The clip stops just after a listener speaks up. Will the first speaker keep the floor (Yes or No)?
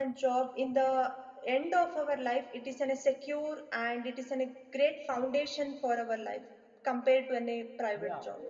No